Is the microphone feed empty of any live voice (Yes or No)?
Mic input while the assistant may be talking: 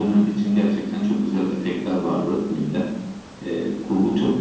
Yes